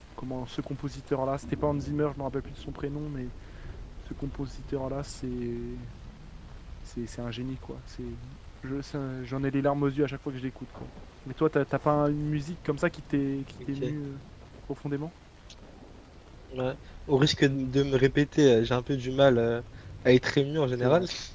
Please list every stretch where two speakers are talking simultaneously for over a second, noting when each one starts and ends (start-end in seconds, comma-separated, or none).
none